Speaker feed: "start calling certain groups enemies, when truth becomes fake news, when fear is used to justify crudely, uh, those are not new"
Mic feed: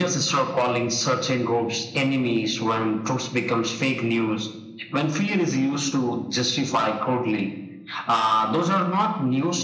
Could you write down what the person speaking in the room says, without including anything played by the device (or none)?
none